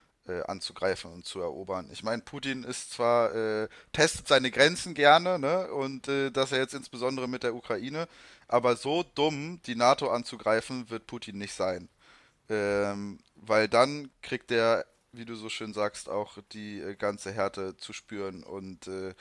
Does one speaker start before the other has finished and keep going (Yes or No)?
No